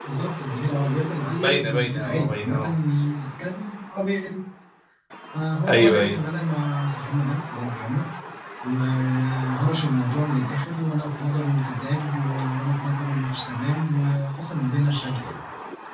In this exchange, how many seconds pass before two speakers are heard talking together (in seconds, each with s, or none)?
1.4 s